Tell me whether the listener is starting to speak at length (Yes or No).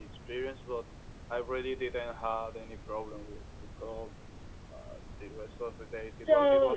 Yes